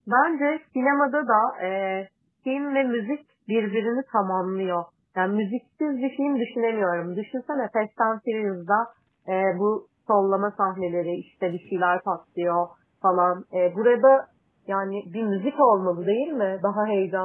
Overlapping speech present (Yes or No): No